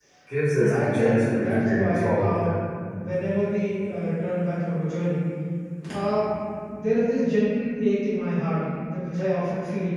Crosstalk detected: Yes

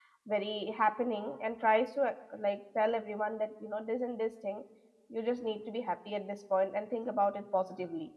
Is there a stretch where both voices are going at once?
No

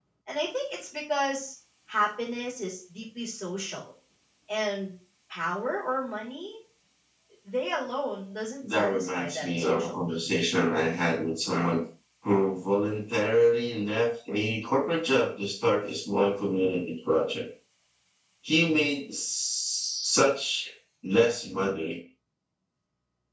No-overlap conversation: No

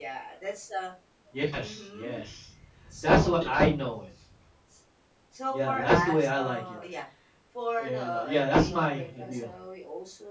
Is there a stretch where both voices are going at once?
Yes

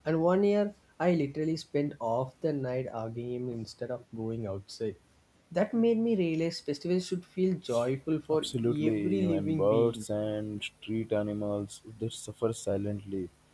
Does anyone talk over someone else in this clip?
Yes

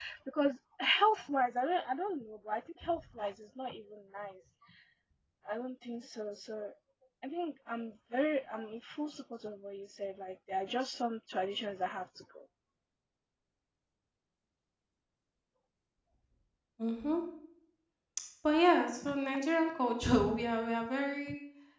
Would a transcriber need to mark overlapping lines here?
No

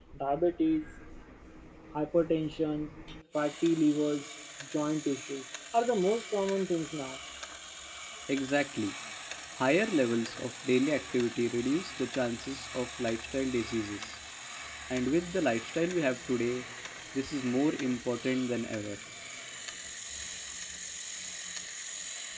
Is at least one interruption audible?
No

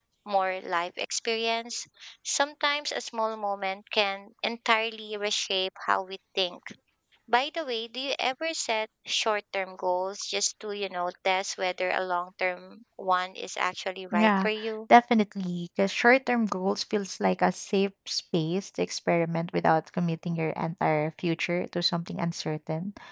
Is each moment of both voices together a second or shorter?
Yes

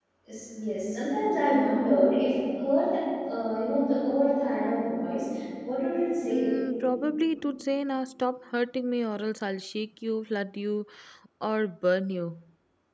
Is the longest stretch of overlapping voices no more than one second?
Yes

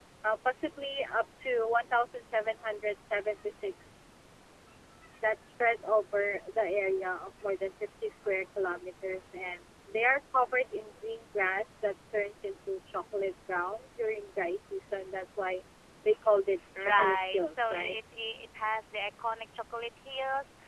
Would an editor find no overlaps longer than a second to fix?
No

